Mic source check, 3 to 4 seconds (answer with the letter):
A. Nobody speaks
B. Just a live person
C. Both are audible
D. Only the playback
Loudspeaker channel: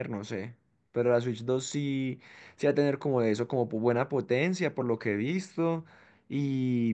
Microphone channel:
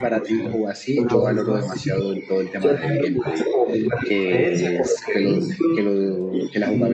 C